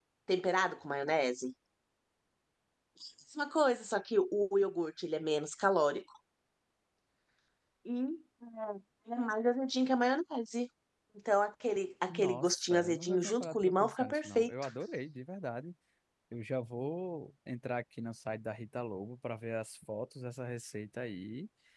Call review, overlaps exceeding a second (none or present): present